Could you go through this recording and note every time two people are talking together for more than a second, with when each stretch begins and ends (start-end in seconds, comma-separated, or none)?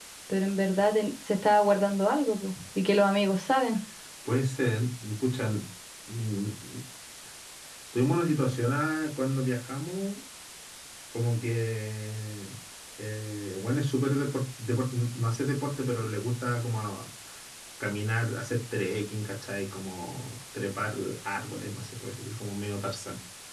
none